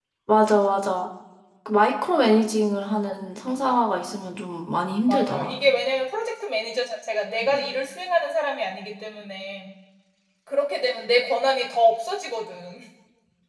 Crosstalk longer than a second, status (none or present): none